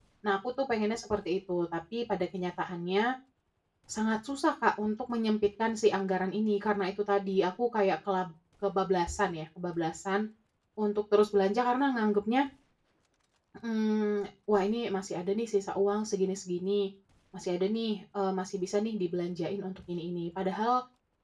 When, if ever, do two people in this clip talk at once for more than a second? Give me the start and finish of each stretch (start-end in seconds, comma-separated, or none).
none